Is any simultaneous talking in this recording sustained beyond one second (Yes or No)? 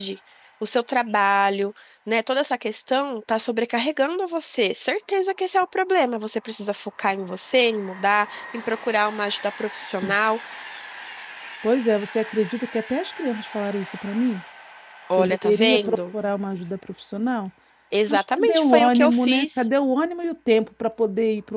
Yes